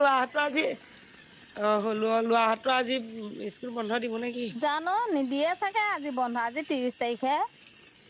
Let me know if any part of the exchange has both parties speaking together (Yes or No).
No